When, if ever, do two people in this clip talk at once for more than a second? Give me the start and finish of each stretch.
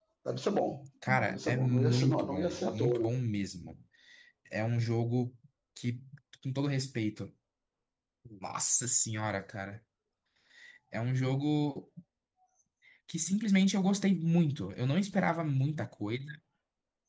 1.2-3.1

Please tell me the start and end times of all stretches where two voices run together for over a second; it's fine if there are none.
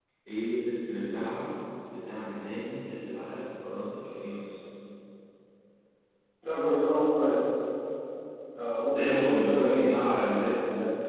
8.8-10.1

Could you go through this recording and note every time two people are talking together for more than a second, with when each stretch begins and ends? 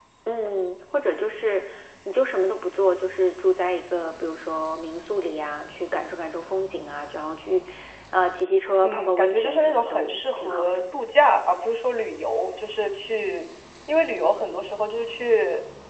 8.8-10.8

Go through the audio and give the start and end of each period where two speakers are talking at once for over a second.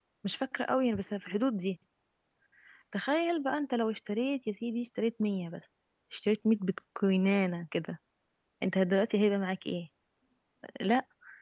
none

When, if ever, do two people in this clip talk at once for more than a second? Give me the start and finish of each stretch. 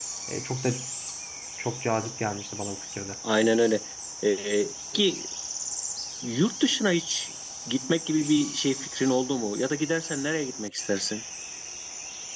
none

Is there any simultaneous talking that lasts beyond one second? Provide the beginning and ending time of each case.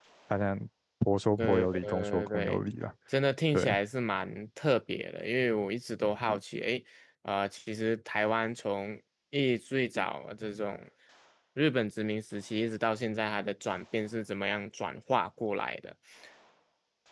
1.4-2.6

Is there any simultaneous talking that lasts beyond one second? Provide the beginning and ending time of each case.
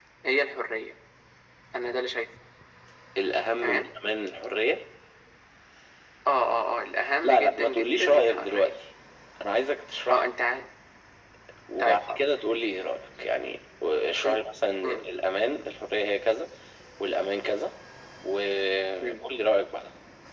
7.2-8.7

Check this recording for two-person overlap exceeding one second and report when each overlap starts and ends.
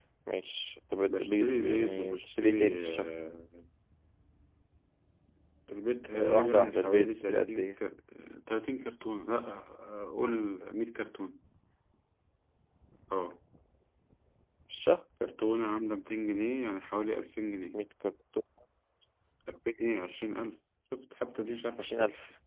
1.1-3.1, 6.1-7.8

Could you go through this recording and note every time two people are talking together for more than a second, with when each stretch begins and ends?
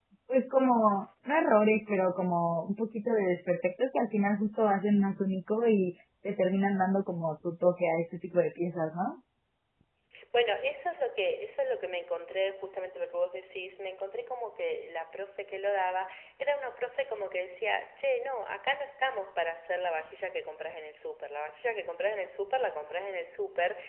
none

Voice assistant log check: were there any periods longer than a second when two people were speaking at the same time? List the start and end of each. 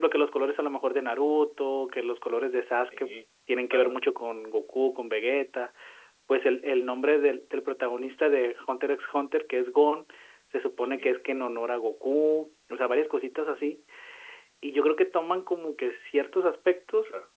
none

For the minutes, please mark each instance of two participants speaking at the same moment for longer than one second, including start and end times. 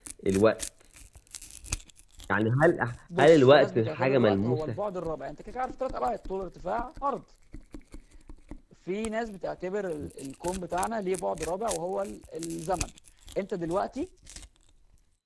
3.2-4.8

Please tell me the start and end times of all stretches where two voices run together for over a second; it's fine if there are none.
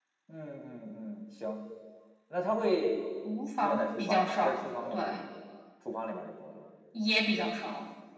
3.6-5.2

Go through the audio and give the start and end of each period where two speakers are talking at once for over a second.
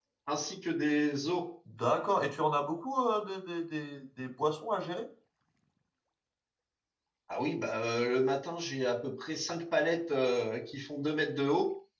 none

